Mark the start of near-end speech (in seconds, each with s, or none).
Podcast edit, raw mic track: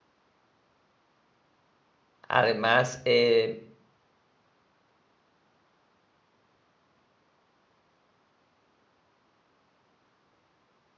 2.3 s